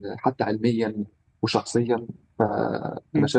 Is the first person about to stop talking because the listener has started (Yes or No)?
Yes